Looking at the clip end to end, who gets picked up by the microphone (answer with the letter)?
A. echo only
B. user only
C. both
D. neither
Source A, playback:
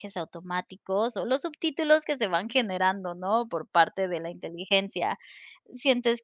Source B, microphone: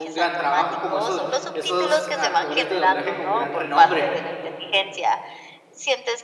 C